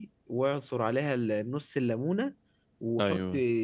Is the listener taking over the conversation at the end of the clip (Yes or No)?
No